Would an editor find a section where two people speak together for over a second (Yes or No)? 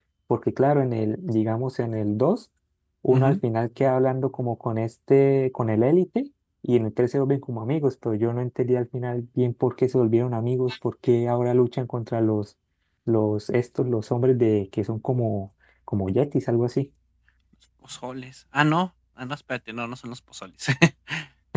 No